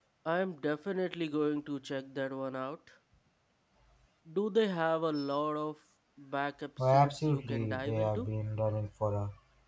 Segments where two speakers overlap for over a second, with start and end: 6.8-8.3

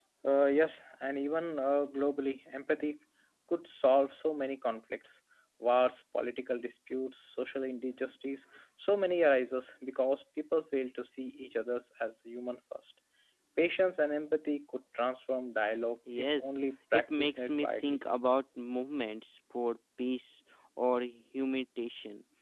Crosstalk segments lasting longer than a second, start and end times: 16.2-18.0

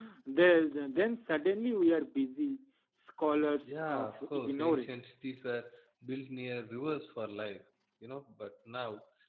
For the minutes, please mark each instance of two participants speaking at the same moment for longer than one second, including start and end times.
3.7-5.0

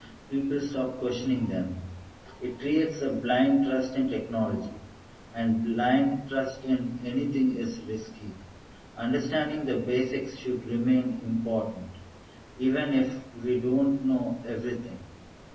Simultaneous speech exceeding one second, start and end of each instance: none

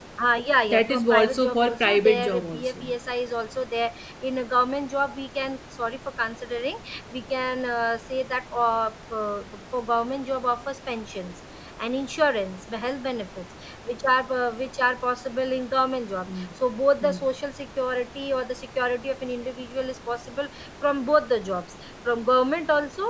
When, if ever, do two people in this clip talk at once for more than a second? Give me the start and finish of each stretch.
0.7-2.9

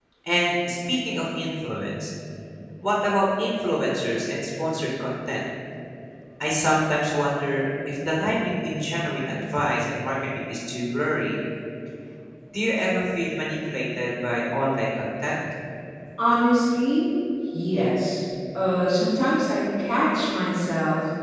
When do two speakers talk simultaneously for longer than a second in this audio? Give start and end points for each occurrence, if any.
none

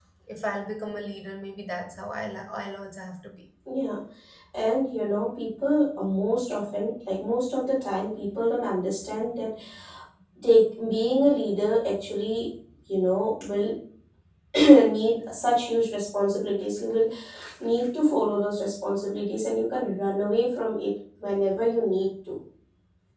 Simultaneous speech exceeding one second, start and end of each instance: none

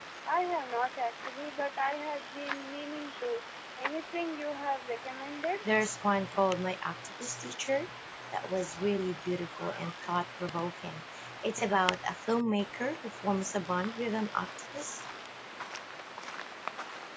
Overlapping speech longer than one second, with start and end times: none

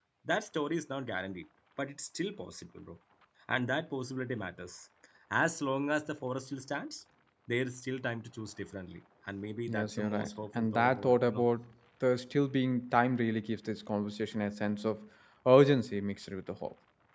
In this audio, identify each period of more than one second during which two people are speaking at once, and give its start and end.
9.7-11.4

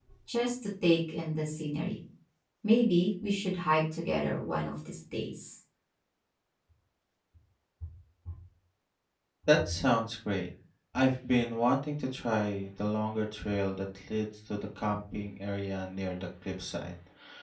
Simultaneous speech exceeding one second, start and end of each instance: none

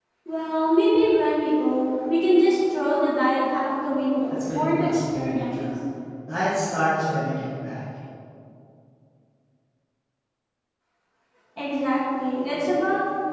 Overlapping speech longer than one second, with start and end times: 4.3-5.7

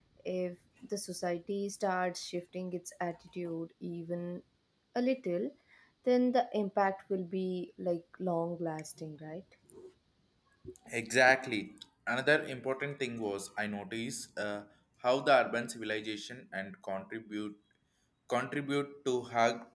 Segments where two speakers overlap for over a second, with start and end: none

